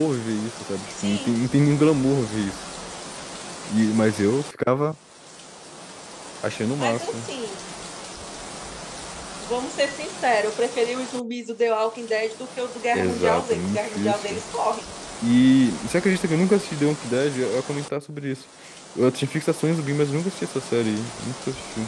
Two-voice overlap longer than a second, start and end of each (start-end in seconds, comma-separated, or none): 12.9-14.4